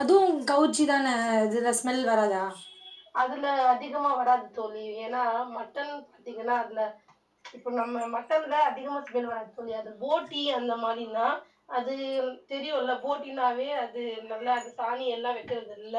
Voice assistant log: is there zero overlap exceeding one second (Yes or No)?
Yes